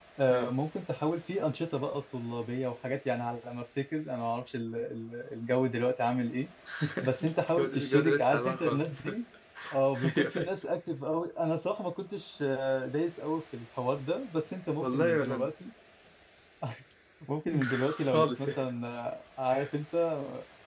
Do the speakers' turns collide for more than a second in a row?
Yes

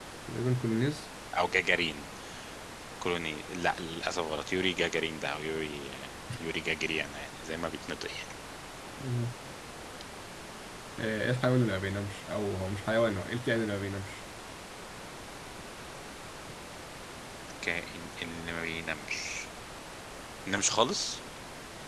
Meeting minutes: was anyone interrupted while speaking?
No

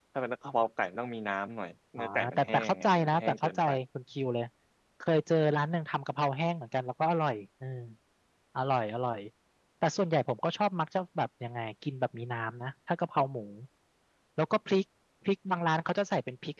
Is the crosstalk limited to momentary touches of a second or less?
No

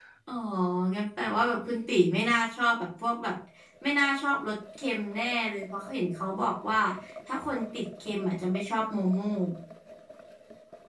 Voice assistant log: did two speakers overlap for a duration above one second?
No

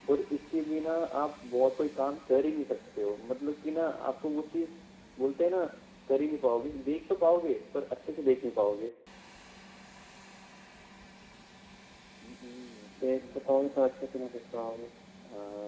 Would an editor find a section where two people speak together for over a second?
No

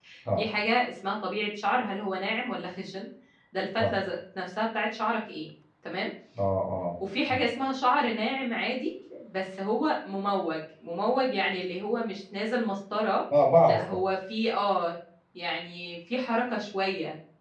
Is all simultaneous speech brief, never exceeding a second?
Yes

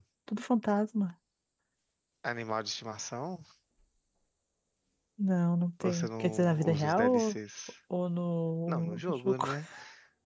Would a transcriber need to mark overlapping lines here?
Yes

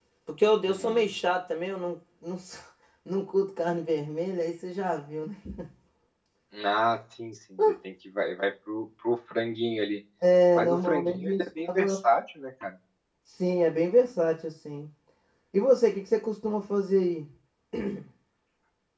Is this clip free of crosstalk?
No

